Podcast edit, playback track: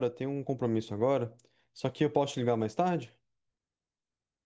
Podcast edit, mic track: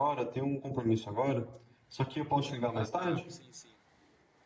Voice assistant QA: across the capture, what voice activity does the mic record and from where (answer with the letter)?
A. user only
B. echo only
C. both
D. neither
C